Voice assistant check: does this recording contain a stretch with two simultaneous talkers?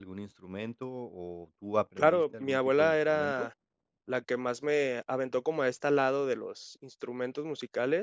Yes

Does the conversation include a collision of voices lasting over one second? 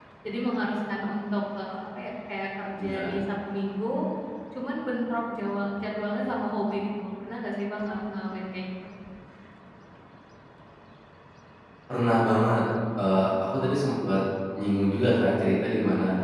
No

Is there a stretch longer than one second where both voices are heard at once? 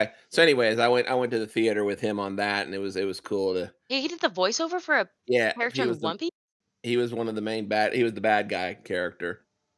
No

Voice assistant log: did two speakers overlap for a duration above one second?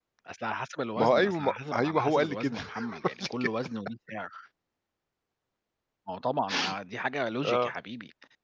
Yes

